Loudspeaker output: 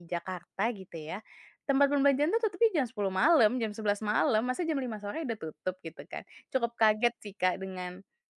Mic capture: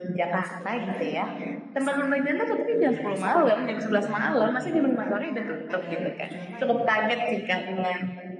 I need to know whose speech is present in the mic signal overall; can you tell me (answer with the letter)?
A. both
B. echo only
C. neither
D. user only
A